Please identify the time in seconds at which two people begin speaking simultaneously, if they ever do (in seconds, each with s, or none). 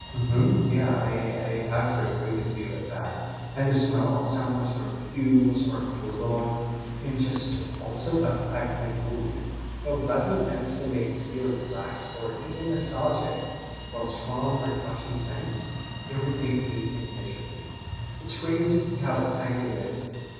none